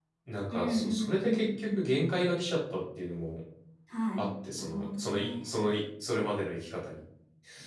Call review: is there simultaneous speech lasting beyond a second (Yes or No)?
Yes